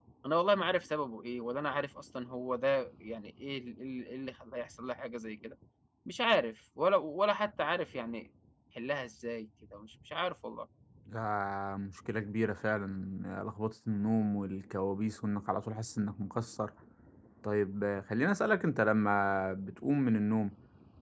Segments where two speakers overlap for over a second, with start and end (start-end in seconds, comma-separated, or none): none